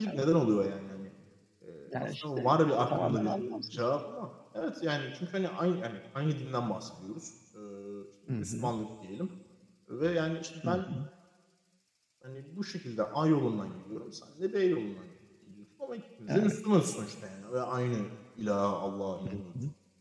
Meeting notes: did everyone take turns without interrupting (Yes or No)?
No